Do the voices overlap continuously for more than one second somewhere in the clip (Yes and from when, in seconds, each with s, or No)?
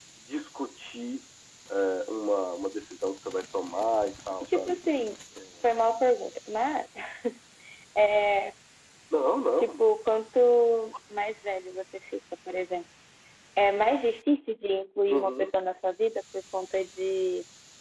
No